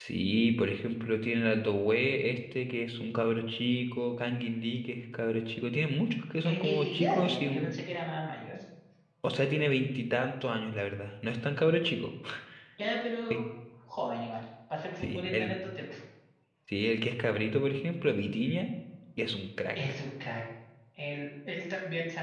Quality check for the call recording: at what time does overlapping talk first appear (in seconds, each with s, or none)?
6.5 s